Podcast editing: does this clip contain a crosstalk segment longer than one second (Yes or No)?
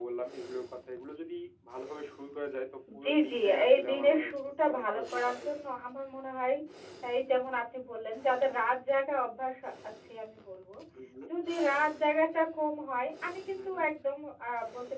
Yes